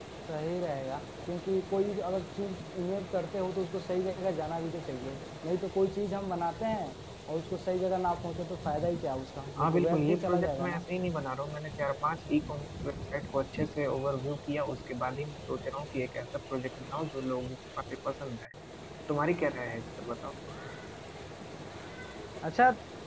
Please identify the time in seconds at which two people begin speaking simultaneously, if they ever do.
9.6 s

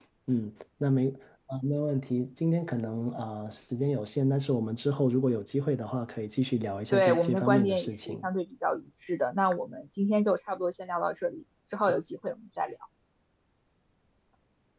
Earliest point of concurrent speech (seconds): 6.9 s

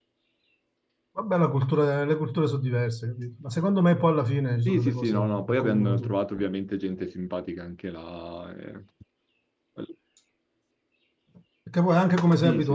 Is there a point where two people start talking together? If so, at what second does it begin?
4.7 s

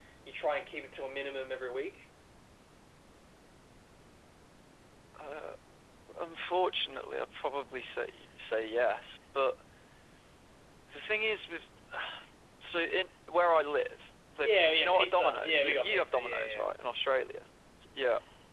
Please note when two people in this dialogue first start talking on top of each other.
14.4 s

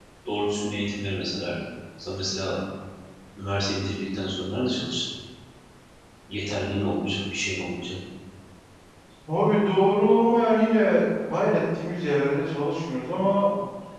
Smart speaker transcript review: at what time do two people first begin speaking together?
none

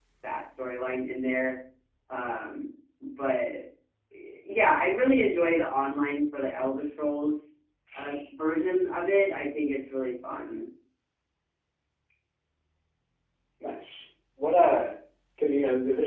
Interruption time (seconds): none

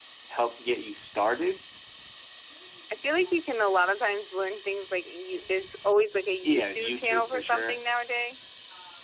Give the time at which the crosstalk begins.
6.4 s

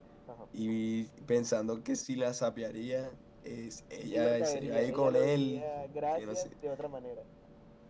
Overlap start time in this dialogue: 4.1 s

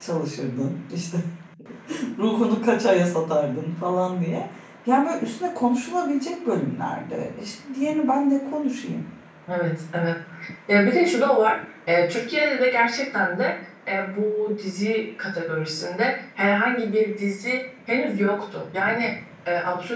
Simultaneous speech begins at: none

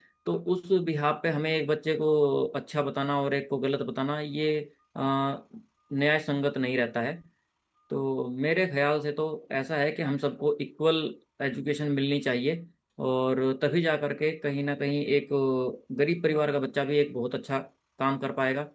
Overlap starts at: none

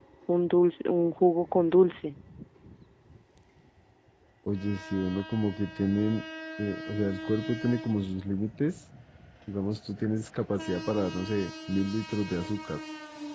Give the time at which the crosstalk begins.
none

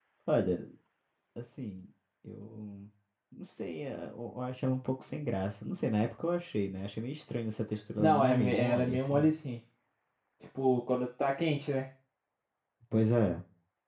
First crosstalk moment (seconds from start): 8.0 s

